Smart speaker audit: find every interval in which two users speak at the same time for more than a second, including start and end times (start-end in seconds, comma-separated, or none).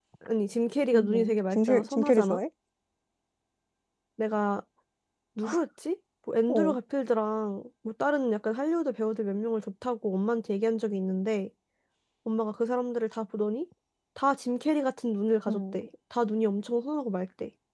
0.9-2.4